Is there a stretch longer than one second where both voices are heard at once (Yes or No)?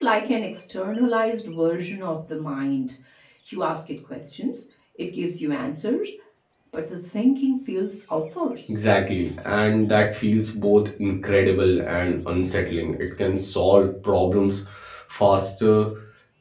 No